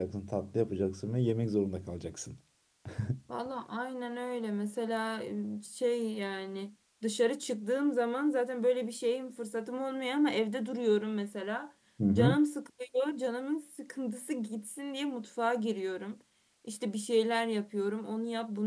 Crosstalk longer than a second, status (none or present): none